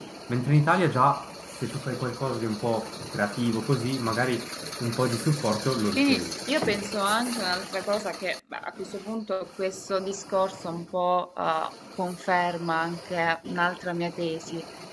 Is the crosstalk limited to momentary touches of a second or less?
Yes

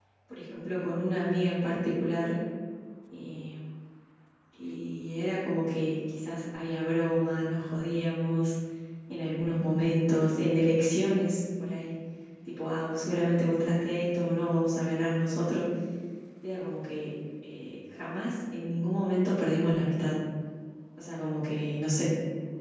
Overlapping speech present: No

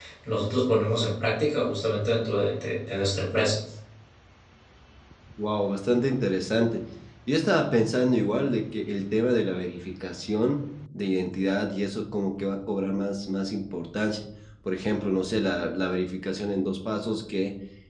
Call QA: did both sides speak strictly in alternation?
Yes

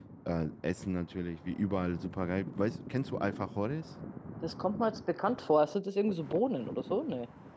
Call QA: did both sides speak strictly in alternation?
Yes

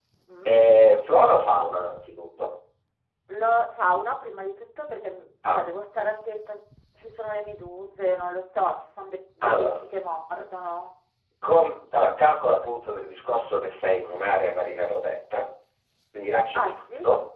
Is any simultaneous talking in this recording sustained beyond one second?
No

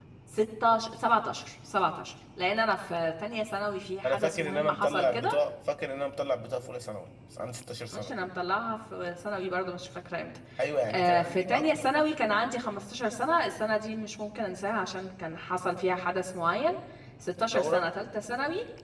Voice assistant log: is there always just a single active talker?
No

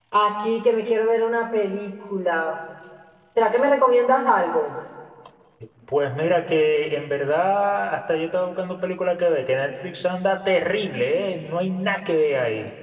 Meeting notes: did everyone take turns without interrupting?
Yes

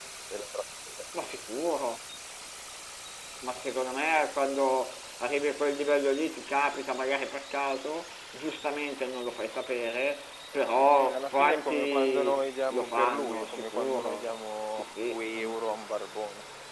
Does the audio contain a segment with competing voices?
Yes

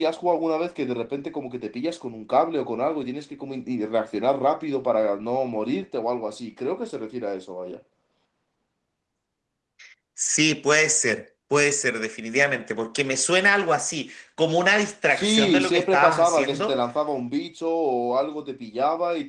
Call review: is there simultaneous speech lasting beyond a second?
Yes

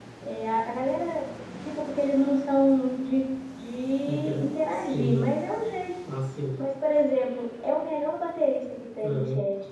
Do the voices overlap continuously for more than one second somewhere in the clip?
Yes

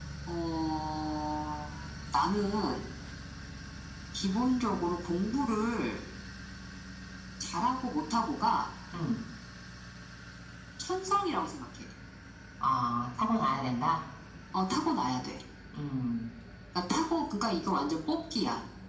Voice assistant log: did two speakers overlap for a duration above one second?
No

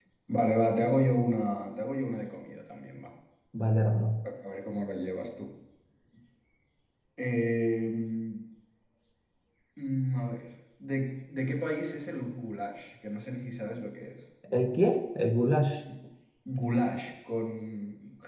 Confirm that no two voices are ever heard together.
Yes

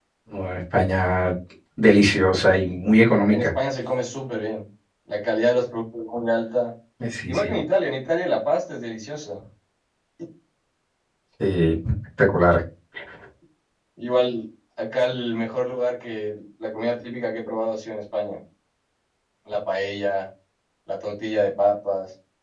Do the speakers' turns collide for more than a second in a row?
No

